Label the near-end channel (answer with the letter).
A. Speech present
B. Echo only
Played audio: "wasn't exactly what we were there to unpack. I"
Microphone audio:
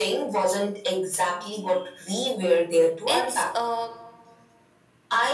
A